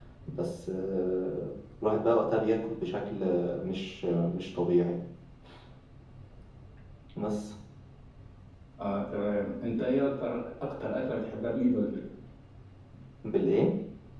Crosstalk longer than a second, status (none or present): none